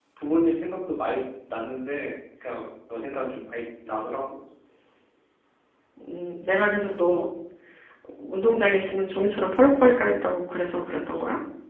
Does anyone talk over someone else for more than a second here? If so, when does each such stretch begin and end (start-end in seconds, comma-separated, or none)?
none